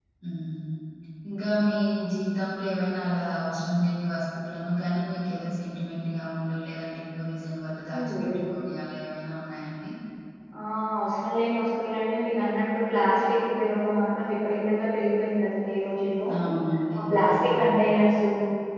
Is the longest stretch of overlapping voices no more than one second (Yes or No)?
Yes